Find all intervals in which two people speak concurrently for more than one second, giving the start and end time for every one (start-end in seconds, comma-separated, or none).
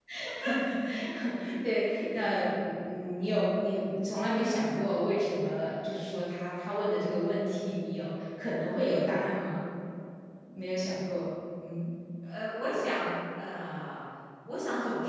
none